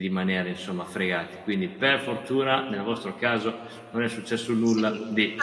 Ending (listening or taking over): taking over